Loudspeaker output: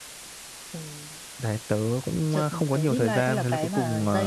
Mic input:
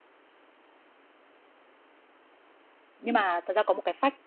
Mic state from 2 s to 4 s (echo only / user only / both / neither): user only